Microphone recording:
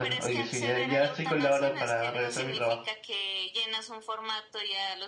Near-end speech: present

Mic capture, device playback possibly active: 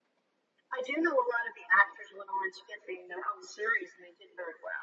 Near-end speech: none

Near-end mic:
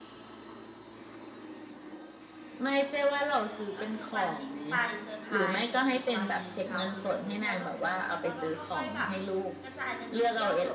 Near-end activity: present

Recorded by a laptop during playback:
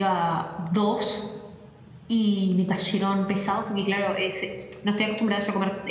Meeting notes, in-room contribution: present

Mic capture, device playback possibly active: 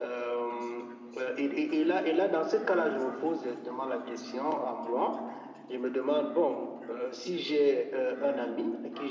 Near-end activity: present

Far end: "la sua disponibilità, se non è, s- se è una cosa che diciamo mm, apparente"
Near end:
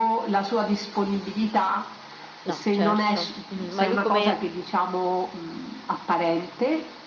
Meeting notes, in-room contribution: present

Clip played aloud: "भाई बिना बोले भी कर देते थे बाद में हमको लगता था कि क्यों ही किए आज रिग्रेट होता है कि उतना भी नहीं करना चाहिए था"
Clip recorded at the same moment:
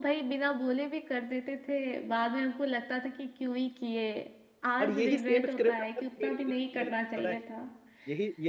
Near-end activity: present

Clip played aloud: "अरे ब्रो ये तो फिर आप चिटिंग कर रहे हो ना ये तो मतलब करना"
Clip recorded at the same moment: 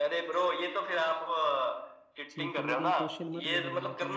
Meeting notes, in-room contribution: present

